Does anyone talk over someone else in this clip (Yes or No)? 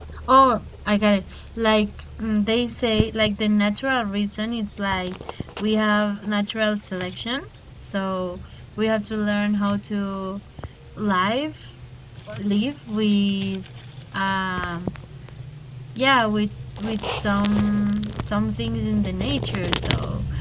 No